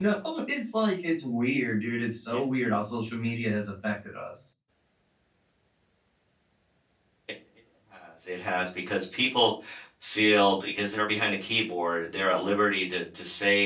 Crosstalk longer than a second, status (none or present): none